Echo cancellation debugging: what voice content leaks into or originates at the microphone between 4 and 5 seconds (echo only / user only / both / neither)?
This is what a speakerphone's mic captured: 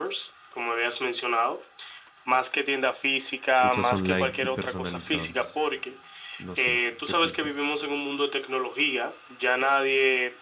both